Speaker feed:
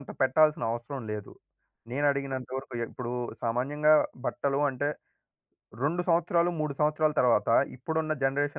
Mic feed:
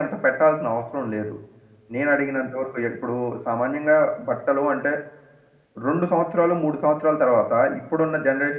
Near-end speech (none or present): none